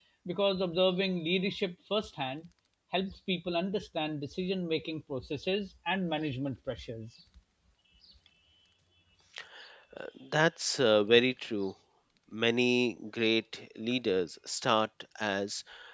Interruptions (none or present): none